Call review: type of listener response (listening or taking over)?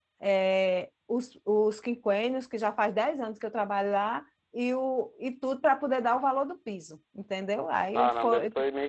taking over